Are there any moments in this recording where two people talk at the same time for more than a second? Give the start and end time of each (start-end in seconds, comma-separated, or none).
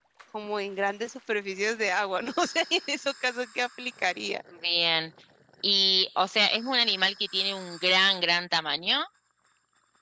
none